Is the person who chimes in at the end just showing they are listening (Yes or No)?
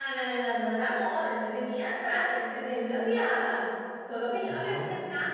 Yes